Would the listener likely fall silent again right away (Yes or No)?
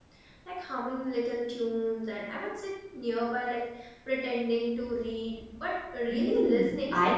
No